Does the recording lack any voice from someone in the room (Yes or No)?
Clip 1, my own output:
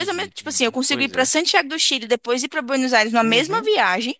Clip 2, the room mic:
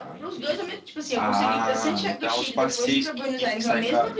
No